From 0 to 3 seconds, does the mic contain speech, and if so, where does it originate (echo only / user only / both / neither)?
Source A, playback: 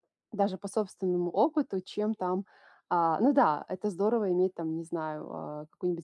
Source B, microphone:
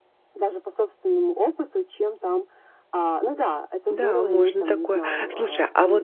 echo only